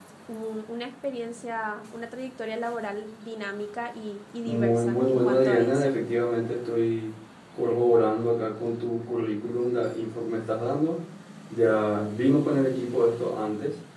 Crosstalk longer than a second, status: present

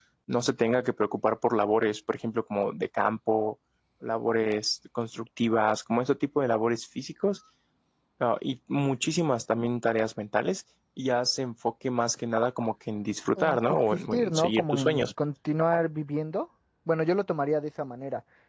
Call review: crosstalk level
present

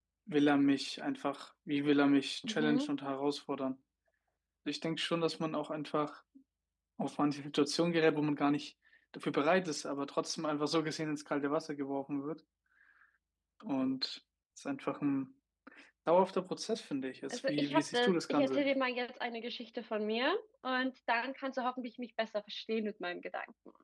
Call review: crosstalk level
present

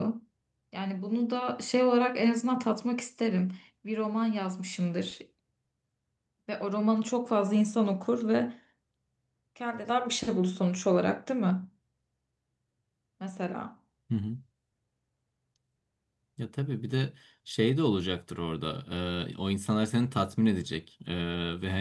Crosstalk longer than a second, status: none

